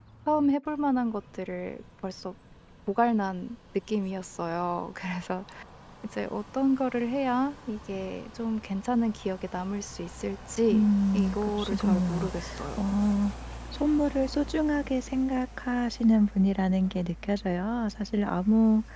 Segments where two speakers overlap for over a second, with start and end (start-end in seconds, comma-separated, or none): 10.7-12.3